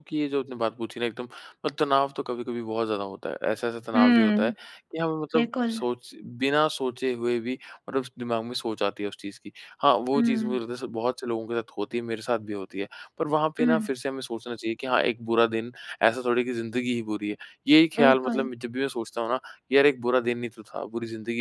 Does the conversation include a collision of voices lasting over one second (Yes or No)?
No